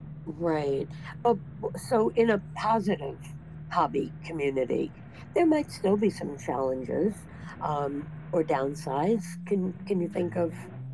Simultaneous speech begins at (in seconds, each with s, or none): none